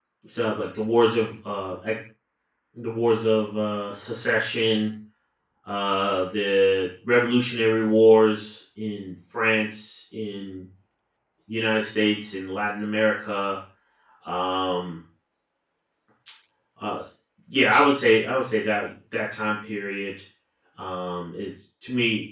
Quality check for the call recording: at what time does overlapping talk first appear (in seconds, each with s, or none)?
none